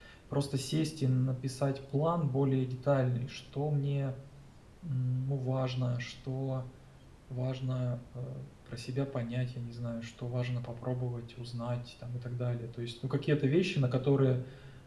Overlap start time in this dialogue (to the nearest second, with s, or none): none